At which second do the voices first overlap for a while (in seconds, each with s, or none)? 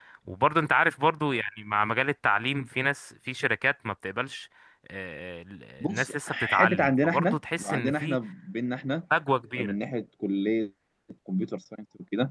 5.8 s